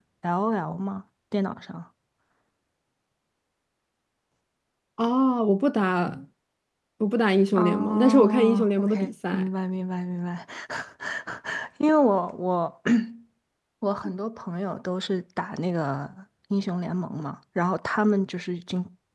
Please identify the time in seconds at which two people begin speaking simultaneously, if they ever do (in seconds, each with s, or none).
7.6 s